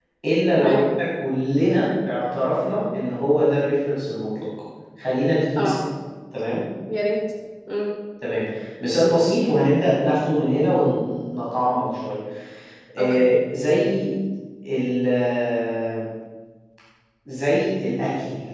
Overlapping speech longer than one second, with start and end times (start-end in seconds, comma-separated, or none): none